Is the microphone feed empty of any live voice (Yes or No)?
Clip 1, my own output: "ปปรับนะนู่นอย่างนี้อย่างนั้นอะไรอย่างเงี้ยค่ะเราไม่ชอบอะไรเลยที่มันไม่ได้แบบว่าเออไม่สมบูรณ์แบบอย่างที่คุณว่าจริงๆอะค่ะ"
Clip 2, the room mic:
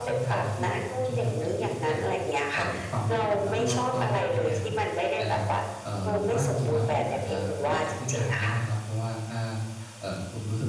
No